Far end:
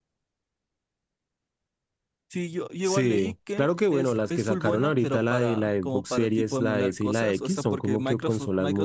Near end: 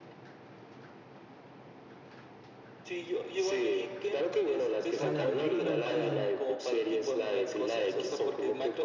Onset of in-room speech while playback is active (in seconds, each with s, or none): 5.0 s